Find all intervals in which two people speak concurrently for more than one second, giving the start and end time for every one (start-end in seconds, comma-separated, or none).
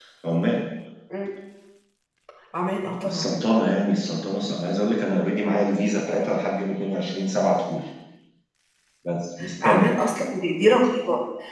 none